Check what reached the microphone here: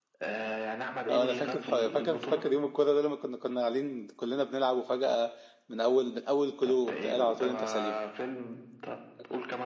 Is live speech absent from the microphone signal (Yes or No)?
No